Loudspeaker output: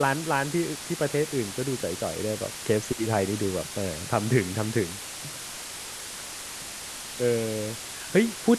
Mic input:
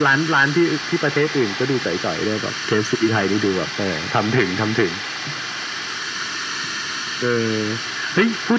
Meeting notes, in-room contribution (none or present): none